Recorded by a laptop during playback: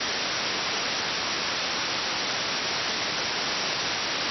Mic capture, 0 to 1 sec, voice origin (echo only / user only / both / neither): neither